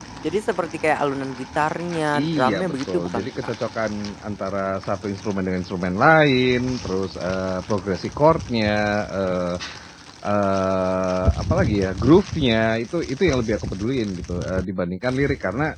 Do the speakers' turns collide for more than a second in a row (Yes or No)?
Yes